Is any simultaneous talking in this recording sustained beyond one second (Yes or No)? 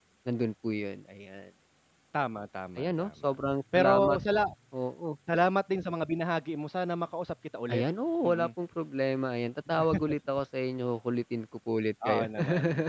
Yes